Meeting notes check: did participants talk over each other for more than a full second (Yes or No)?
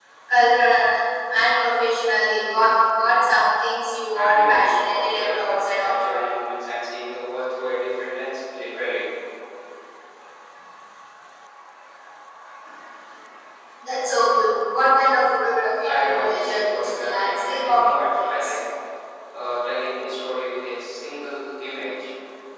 Yes